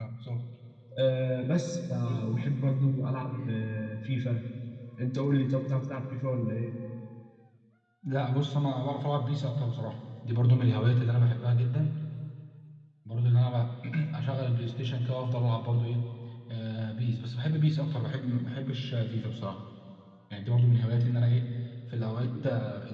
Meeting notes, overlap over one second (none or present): none